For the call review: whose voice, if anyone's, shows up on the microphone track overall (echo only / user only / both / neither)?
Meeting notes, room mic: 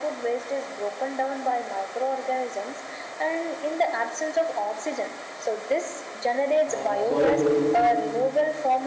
both